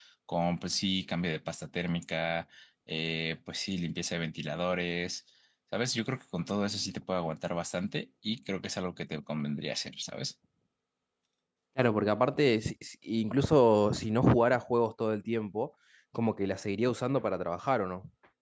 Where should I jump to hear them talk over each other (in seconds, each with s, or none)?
none